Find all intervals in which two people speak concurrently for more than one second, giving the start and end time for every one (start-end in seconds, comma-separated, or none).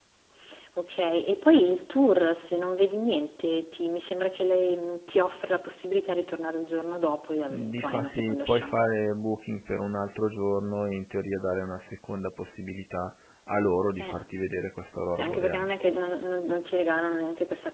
7.5-8.8